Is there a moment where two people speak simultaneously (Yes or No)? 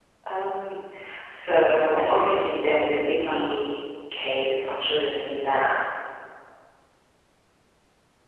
Yes